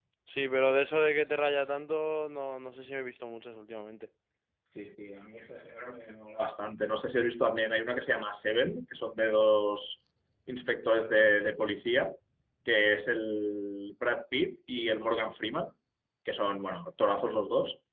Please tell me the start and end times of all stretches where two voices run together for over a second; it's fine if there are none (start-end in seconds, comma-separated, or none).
none